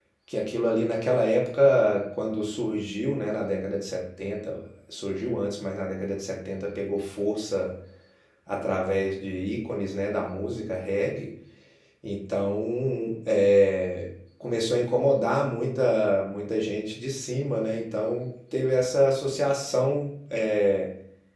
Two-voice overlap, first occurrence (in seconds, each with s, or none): none